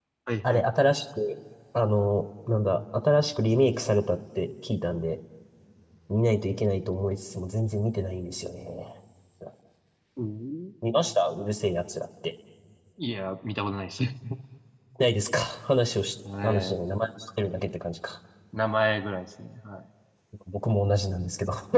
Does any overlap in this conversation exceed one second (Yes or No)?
No